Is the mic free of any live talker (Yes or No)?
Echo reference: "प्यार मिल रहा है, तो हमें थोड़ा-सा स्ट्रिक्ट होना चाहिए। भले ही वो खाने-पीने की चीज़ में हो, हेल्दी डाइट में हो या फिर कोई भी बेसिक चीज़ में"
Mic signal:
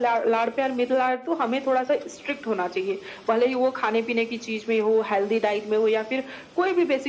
Yes